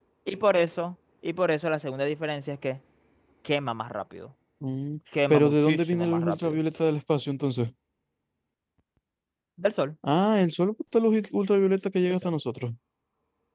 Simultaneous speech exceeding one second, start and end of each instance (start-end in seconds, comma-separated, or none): 5.3-6.6